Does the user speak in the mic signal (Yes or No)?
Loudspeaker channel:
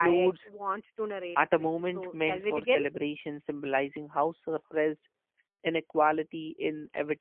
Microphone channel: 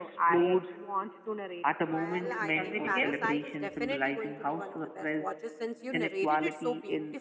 Yes